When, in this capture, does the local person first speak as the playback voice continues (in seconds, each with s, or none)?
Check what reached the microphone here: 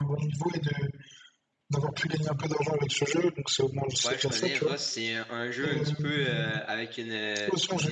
4.0 s